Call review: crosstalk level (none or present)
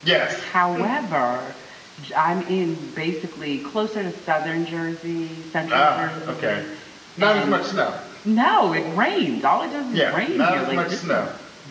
present